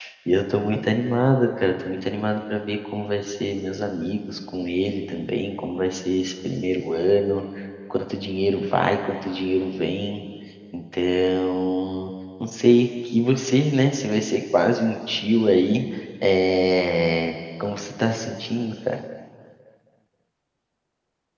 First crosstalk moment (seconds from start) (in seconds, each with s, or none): none